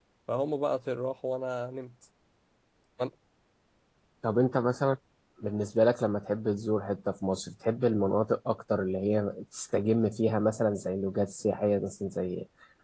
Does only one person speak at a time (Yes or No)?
Yes